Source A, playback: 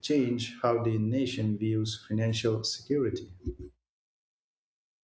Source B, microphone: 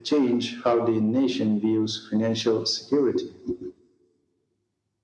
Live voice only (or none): none